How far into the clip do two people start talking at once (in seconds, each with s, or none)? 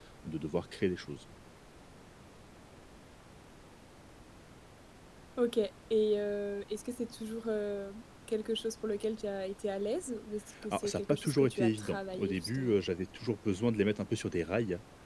10.6 s